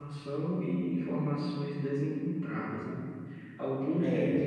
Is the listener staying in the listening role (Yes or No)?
Yes